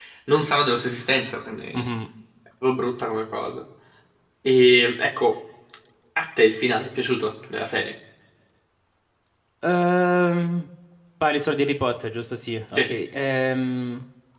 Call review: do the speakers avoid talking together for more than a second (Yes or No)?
Yes